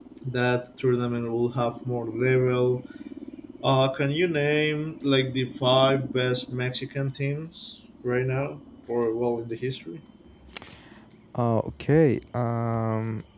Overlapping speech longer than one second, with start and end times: none

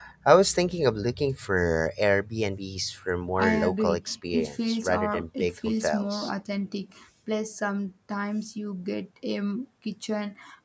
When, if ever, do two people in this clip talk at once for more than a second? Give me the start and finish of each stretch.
3.4-6.3

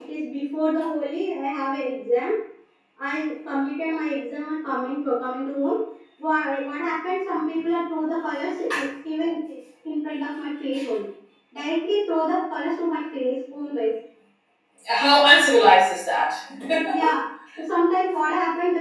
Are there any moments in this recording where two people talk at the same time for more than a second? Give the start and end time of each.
none

